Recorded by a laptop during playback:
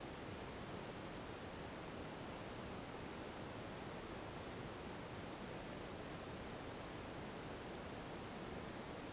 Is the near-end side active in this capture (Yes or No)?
No